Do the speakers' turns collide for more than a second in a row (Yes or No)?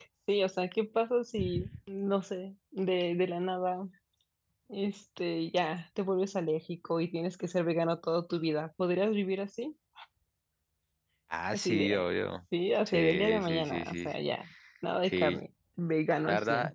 Yes